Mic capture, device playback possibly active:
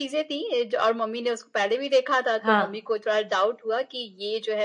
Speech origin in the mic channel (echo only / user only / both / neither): both